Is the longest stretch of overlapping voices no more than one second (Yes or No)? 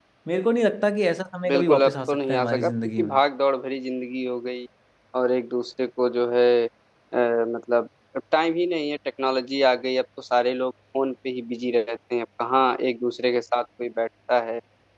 No